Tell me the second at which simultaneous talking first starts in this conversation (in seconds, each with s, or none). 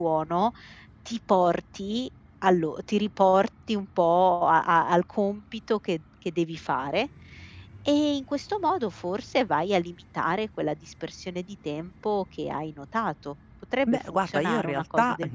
13.9 s